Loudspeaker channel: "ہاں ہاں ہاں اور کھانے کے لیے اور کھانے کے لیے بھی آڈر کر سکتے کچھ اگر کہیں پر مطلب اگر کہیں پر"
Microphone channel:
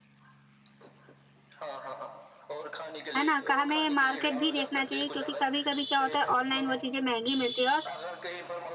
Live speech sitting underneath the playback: No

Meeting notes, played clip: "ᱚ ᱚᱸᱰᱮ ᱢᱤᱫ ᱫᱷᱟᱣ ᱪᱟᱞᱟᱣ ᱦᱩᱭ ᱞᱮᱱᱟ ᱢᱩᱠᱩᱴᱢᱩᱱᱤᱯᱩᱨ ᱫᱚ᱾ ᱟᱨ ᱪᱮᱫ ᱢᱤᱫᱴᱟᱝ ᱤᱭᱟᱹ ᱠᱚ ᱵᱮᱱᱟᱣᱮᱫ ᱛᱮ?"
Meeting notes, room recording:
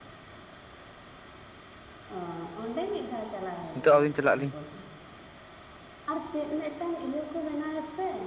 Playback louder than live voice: No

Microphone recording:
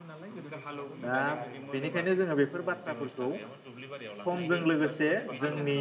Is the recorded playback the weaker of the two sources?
Yes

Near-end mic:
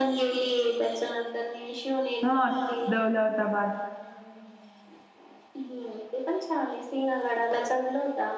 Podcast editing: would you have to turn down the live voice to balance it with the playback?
Yes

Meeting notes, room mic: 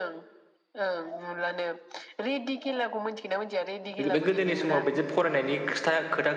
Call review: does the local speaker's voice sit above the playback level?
Yes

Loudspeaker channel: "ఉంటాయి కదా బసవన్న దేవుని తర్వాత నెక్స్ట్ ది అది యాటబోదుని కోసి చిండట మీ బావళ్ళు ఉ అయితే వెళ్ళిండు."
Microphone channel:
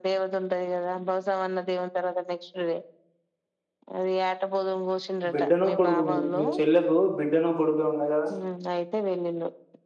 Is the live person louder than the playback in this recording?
Yes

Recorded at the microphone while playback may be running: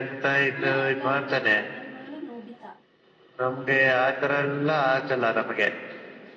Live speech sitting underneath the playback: Yes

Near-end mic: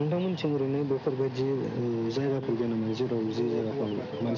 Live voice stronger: No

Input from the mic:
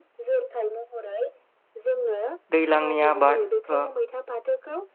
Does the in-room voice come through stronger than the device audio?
Yes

